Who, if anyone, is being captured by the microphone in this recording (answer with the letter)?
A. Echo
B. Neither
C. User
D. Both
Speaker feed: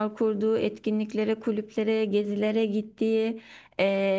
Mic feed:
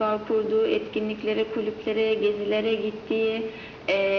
A